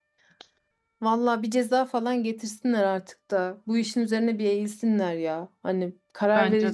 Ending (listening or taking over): listening